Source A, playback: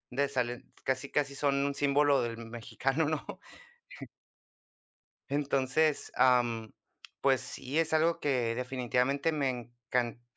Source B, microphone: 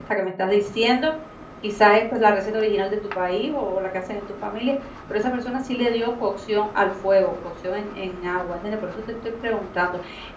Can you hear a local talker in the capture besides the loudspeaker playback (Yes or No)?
Yes